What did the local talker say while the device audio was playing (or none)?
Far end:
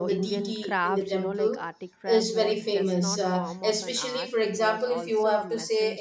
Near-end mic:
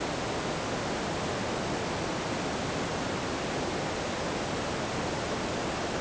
none